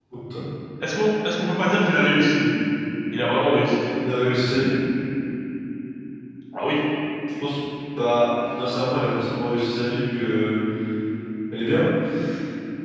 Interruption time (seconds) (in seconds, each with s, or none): none